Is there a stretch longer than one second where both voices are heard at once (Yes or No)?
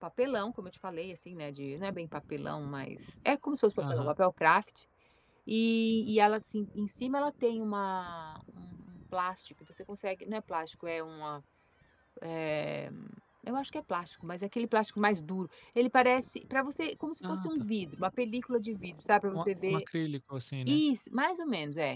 No